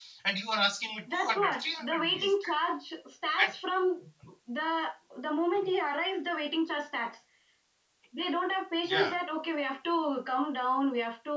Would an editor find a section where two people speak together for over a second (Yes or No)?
Yes